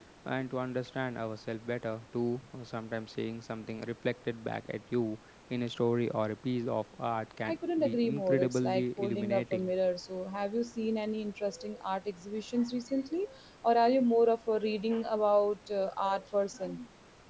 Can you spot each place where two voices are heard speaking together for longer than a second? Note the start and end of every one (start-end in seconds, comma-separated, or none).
7.5-9.7